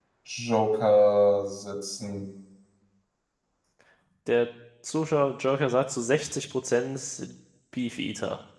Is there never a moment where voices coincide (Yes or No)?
Yes